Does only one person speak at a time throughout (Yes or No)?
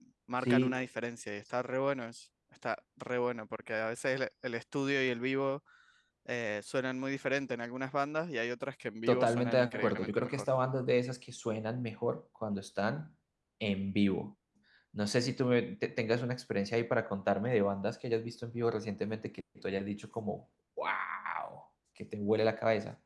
No